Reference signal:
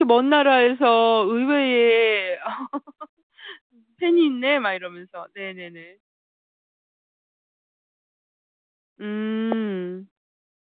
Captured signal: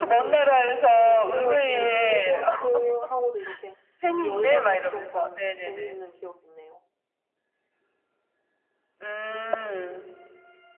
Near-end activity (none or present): present